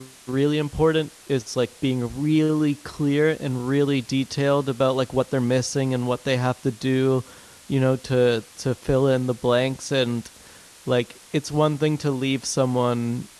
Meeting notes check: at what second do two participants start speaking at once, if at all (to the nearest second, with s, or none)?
none